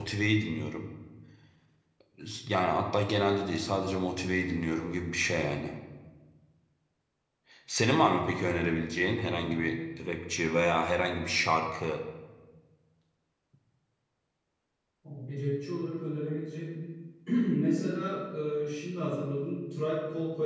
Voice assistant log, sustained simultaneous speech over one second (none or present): none